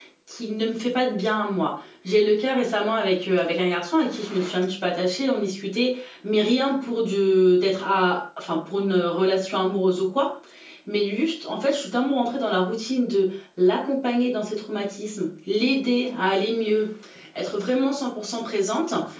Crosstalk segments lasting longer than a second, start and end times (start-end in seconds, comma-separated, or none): none